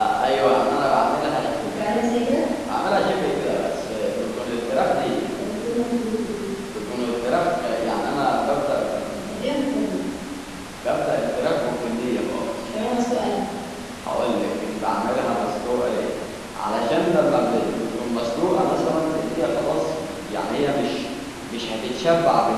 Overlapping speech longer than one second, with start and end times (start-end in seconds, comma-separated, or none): none